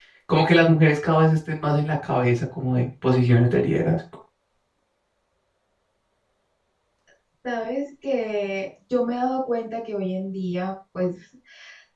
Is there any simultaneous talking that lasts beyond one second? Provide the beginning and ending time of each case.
none

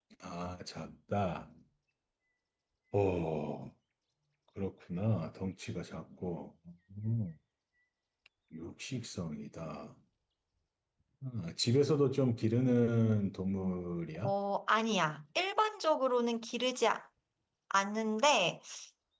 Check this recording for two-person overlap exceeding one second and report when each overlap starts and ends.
none

